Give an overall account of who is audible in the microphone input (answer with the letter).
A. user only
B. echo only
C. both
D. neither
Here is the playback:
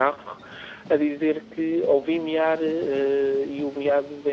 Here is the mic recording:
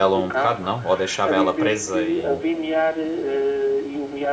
C